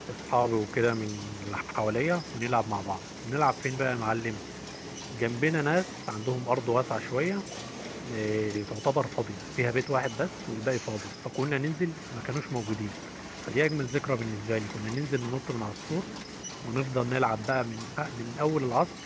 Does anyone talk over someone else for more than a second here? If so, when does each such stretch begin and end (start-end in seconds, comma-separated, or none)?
none